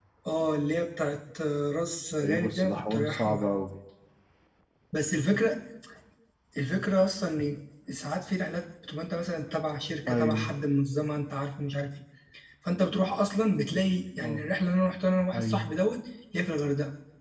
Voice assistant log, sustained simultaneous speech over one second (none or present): present